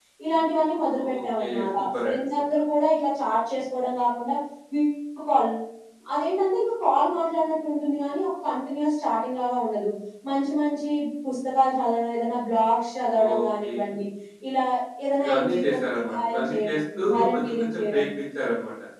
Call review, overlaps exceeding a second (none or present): present